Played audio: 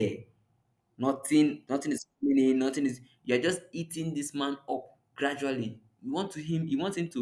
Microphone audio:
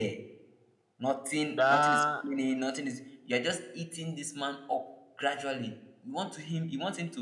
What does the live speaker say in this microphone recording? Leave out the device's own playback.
that

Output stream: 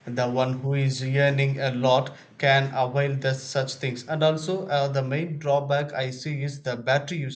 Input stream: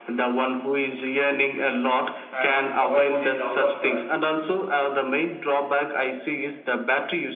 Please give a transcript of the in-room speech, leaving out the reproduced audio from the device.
and one mobile phone is out of charge,

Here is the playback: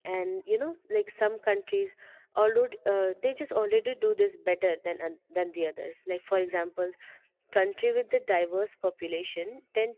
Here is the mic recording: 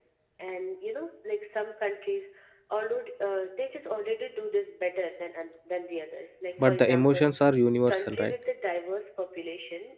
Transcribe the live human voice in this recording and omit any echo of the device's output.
but the emotions are universal, right?

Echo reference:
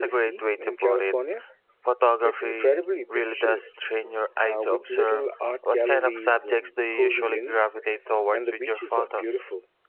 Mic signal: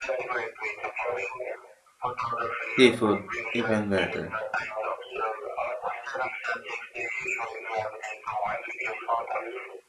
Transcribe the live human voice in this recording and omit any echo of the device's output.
Seafood, even better.

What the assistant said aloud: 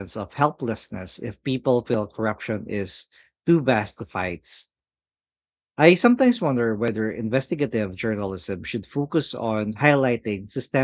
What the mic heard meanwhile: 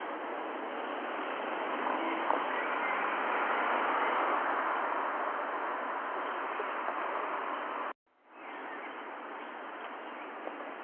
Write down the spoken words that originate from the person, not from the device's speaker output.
none

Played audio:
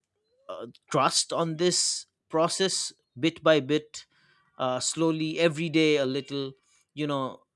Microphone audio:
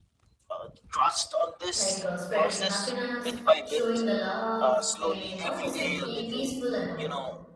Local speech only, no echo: like uh, spreading the happiness, showing the love, and all these things, being peaceful and all.

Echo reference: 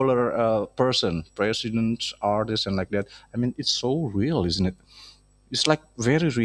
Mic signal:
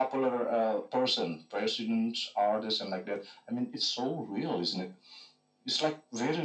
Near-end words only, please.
none

